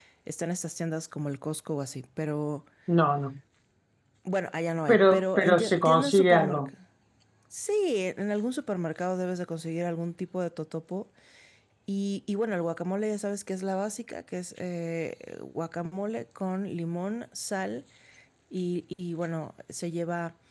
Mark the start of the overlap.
4.9 s

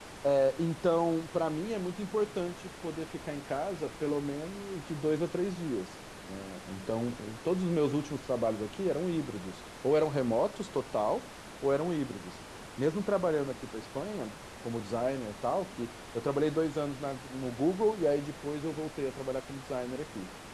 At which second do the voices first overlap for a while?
none

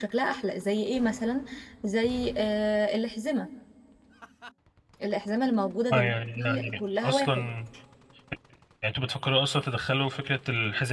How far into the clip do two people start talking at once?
5.9 s

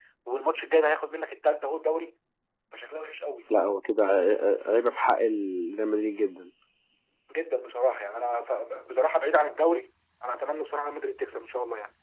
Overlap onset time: none

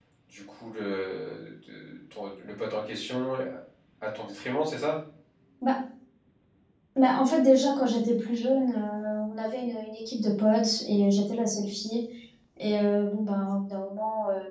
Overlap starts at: none

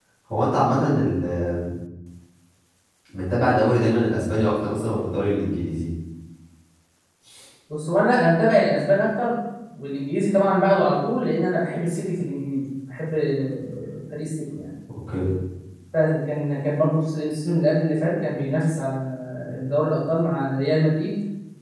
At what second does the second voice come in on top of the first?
none

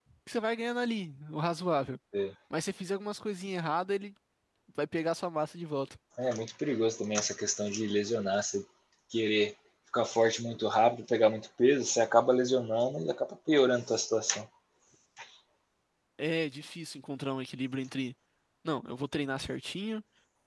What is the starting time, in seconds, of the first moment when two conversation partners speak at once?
none

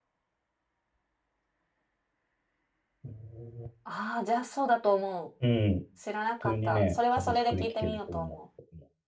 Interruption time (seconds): 6.5 s

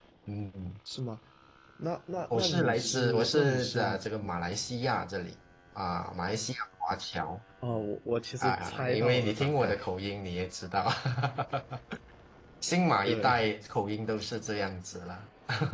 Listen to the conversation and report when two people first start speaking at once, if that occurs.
2.3 s

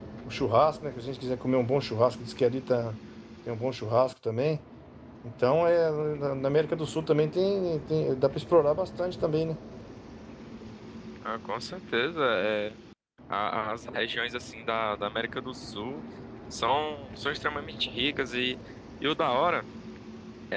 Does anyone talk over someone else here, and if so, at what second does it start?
none

